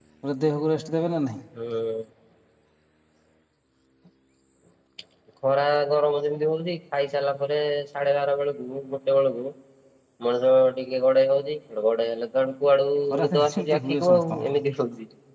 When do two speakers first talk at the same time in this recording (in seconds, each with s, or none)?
13.1 s